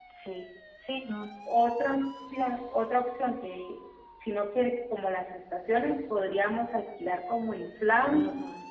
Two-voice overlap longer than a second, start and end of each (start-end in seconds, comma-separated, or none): none